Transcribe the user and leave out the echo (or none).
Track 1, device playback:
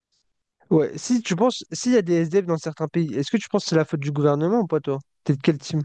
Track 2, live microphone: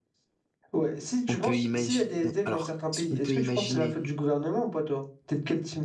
On peut imaginer. Alors, ce qu'on peut imaginer,